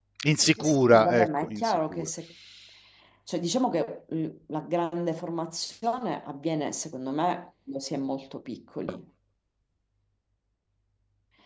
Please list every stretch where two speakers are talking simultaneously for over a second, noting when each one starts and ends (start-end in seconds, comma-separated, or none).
0.6-2.1